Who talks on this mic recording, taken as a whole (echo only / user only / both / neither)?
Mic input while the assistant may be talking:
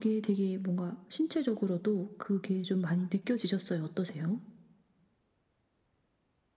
echo only